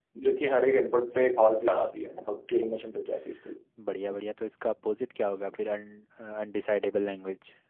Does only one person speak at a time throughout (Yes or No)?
Yes